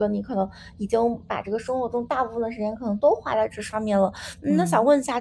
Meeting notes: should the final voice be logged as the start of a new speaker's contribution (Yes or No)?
No